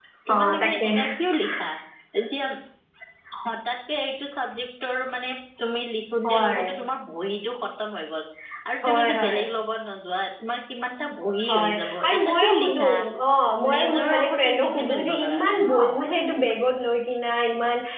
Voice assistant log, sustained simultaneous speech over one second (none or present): present